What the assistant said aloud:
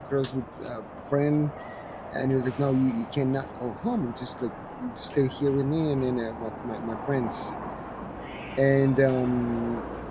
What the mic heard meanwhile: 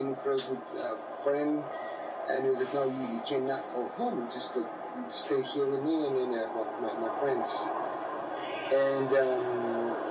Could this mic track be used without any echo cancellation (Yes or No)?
No